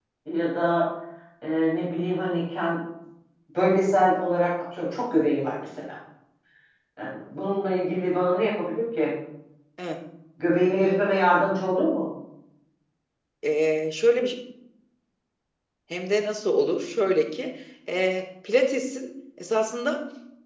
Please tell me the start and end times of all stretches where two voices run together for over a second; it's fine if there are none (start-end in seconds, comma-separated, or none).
none